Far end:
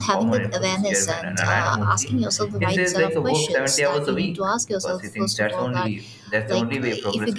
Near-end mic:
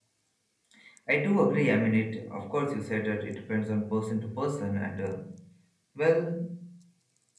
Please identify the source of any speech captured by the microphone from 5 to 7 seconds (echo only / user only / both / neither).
user only